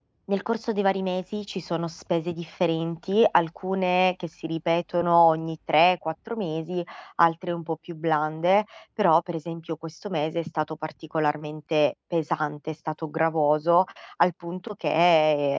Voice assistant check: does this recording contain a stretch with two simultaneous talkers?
No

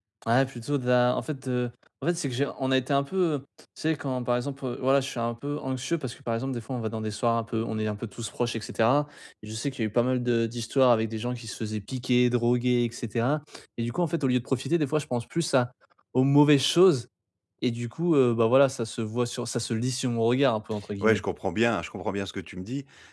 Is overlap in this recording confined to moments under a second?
Yes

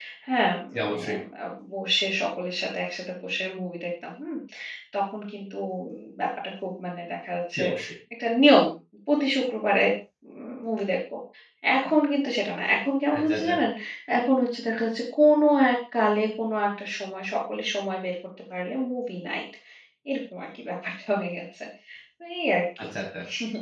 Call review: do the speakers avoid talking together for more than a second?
Yes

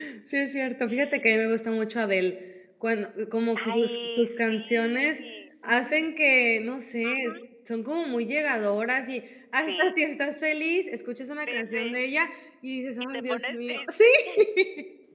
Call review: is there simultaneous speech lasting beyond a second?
Yes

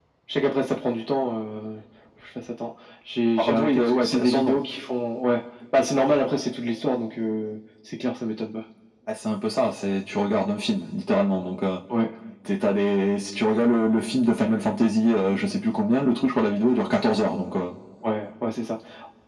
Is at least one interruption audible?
Yes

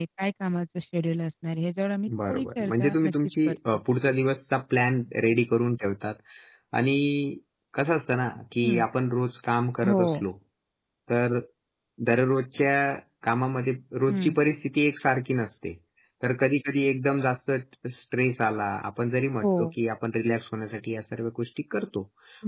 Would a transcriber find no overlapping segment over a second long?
No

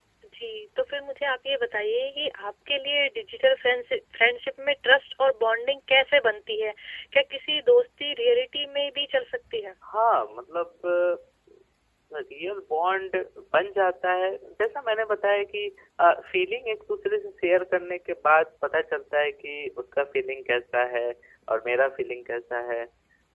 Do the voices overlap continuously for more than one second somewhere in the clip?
No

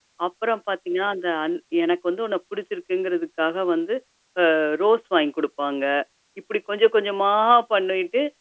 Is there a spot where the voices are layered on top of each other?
No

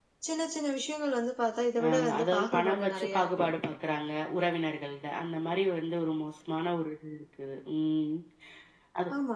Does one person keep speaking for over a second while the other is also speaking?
Yes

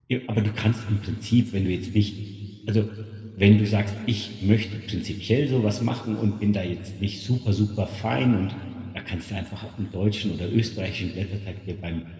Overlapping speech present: No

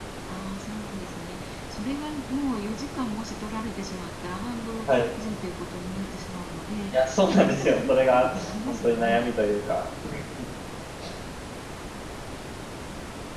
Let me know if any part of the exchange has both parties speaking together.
Yes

